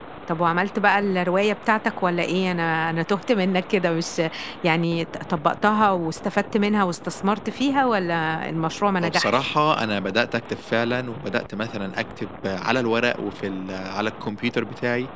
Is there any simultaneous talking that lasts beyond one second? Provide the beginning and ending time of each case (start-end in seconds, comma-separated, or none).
none